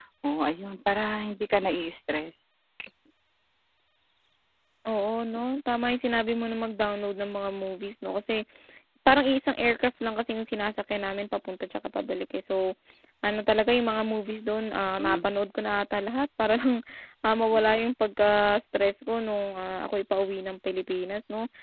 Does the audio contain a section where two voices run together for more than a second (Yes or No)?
No